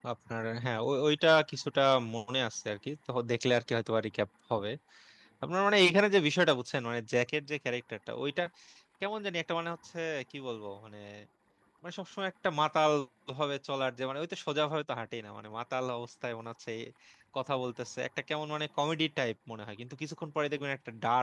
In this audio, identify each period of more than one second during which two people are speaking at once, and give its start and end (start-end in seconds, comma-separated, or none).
none